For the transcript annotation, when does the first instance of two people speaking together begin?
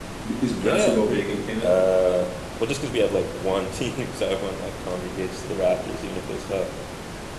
0.5 s

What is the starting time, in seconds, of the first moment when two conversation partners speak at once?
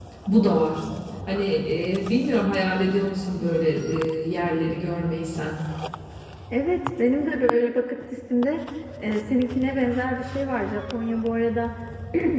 none

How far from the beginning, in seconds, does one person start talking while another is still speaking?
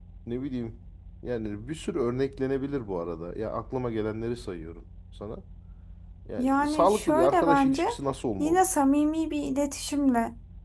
6.4 s

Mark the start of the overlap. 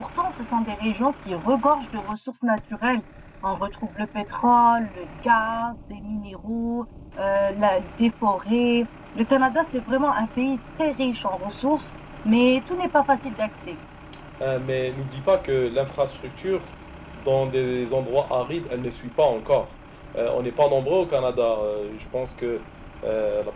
none

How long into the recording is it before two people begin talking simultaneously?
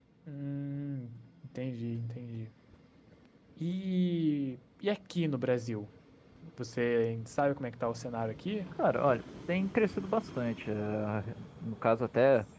none

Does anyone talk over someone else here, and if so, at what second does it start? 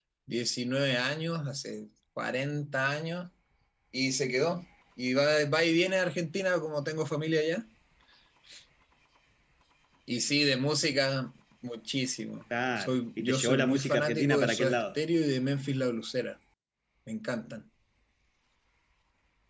12.8 s

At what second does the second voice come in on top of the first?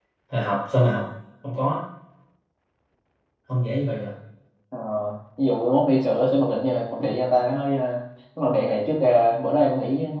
none

